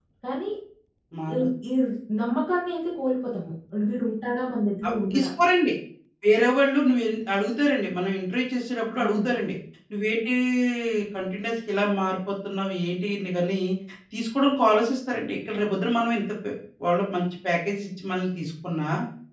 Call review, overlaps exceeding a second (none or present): none